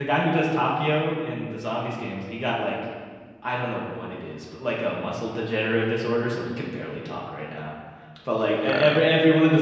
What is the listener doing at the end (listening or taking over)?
listening